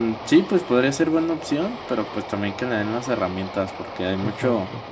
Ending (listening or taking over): listening